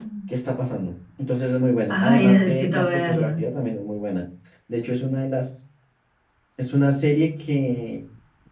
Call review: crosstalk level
present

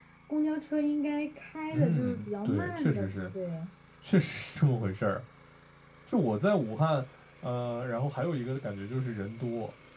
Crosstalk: present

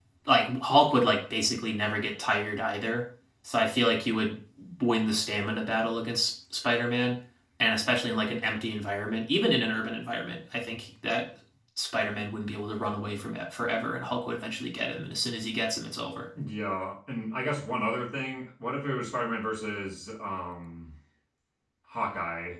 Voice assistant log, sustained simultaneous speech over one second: none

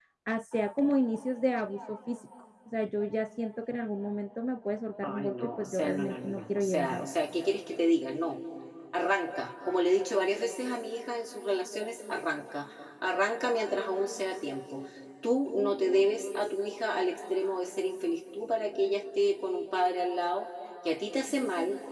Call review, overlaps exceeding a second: present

